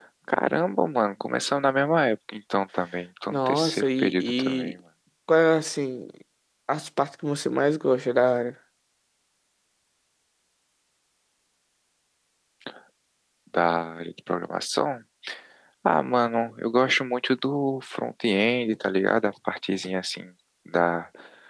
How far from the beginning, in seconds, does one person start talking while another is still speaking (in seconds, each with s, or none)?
3.3 s